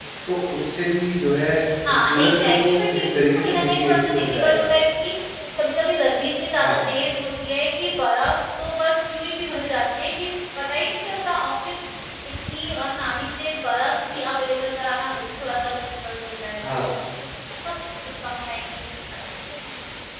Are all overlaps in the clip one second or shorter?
No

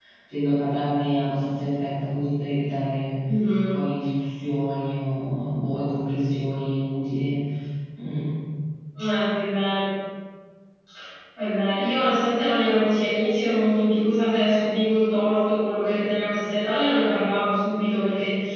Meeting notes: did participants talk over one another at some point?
No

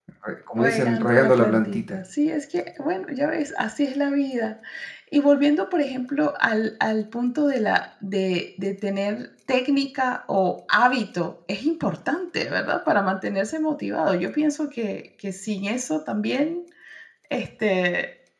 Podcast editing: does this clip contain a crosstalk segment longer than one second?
Yes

